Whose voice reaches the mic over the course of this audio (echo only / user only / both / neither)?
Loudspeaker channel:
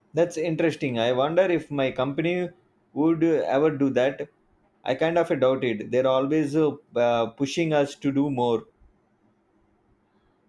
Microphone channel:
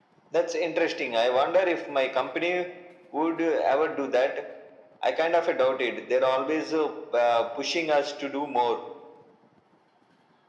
echo only